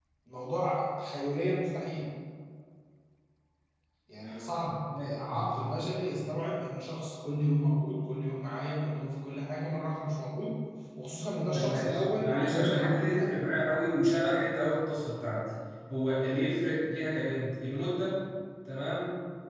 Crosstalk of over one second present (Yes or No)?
Yes